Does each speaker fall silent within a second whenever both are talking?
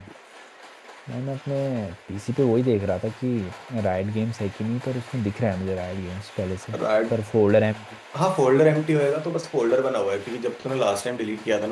Yes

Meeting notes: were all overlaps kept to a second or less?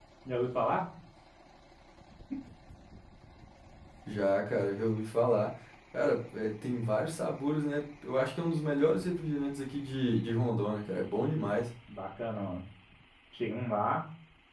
Yes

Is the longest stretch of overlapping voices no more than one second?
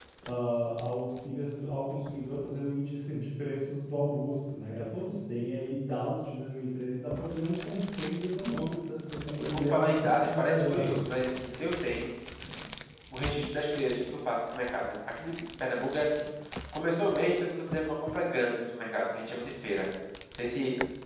No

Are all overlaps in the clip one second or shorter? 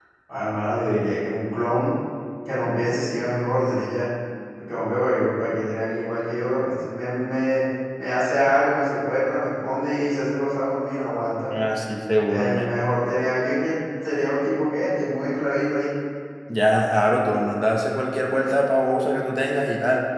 Yes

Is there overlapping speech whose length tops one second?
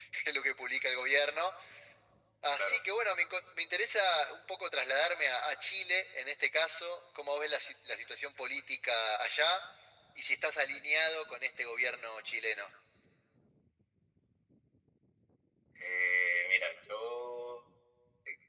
No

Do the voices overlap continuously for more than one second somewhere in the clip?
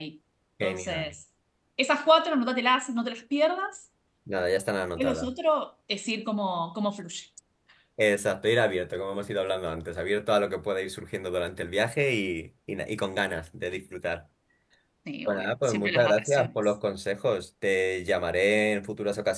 Yes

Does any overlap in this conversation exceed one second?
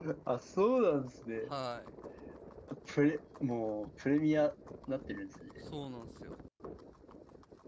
No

